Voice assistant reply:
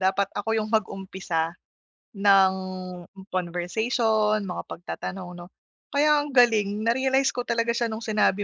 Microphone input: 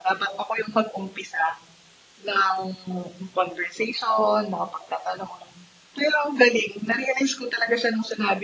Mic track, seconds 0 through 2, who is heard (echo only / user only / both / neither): echo only